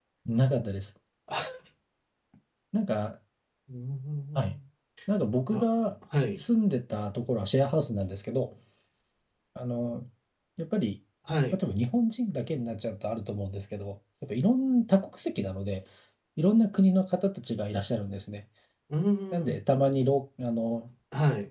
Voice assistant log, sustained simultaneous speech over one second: none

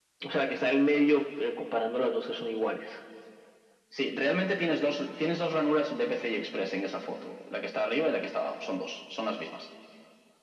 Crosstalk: none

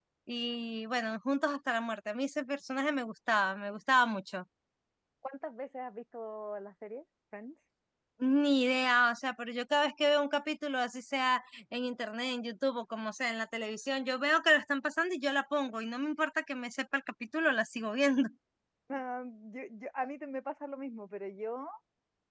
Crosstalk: none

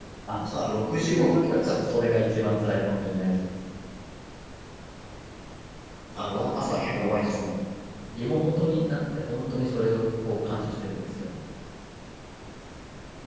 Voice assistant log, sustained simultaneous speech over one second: present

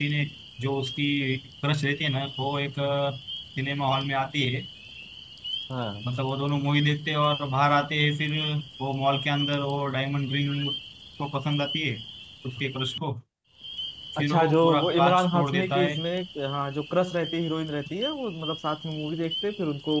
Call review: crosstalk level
present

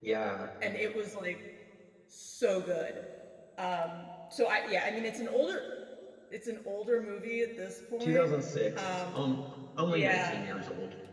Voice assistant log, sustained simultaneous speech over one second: none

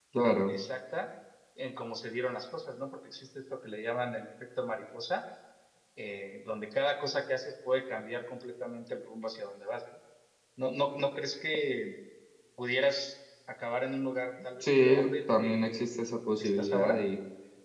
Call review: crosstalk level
present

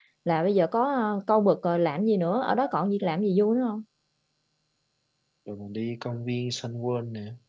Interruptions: none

